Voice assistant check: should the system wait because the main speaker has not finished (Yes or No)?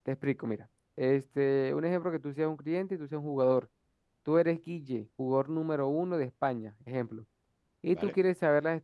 Yes